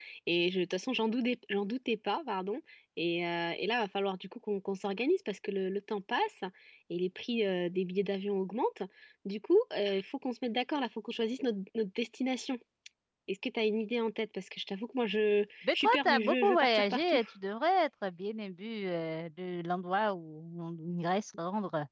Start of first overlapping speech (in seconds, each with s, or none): 15.6 s